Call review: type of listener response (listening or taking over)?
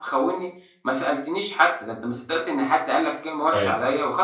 taking over